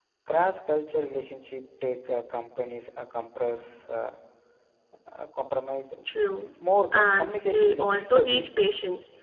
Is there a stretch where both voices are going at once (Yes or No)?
Yes